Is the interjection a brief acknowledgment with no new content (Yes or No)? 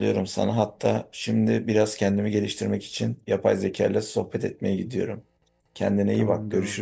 No